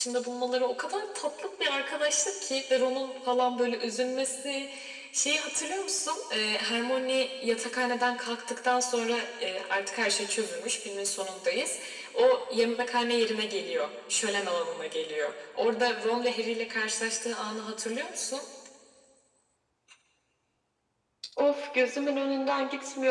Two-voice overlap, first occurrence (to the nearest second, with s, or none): none